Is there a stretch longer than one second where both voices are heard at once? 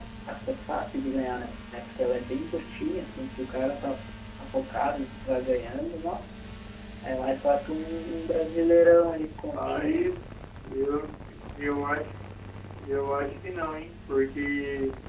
No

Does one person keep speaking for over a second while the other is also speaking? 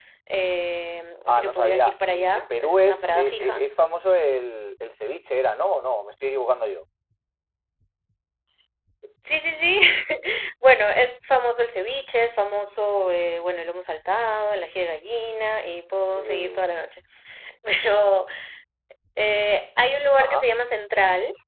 Yes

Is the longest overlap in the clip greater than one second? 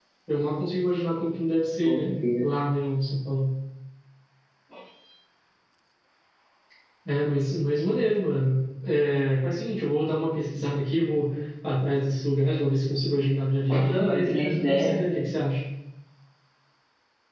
Yes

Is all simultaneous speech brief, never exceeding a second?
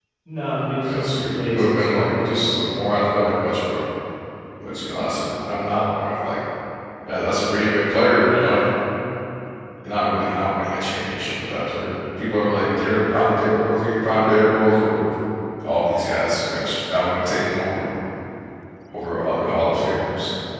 No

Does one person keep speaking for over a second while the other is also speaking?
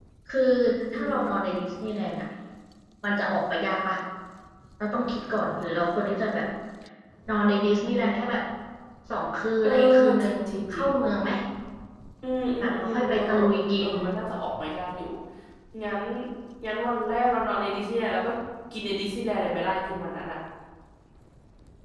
Yes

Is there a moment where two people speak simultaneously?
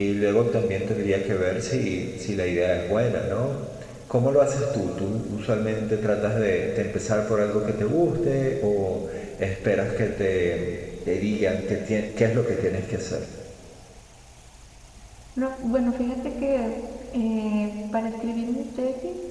No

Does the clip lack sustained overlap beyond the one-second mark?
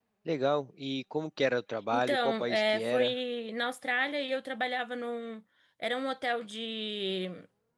No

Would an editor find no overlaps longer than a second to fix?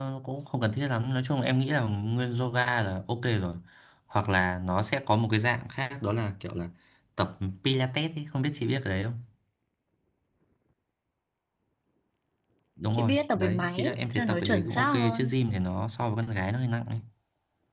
No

